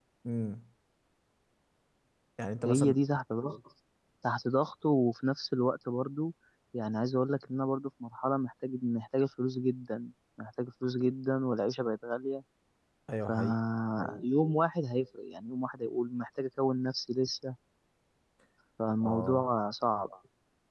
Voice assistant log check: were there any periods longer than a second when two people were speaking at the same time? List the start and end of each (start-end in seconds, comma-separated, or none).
none